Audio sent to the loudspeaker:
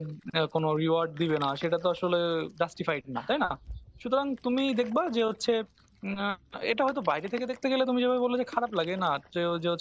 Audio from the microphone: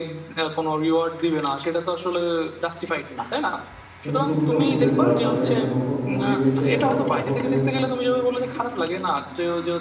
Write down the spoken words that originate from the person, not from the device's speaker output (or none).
কিন্তু তুমি তো বুঝেছো আসলে নতুন পরিবেশে হঠাৎ করে